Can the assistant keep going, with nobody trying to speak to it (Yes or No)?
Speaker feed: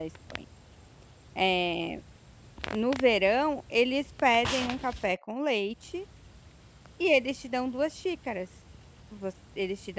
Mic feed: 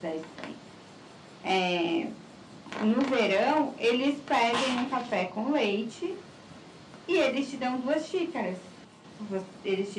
Yes